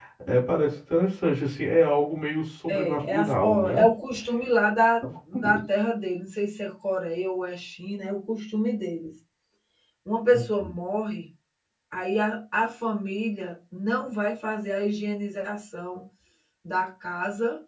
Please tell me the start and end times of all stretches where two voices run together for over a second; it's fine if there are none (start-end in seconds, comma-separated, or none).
2.7-3.9